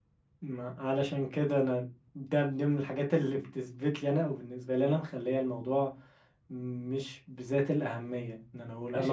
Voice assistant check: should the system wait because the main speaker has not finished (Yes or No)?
No